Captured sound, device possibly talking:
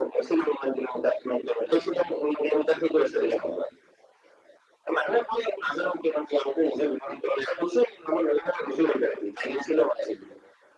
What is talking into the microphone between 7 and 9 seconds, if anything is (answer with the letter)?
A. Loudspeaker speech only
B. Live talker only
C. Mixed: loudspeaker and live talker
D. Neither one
A